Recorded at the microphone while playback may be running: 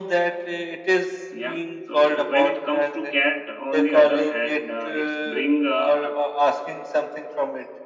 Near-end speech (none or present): present